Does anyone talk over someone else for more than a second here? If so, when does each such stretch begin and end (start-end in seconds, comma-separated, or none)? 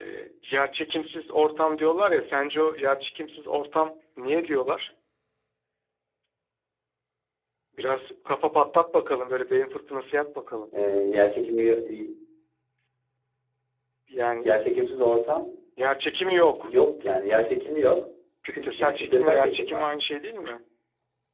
18.5-19.9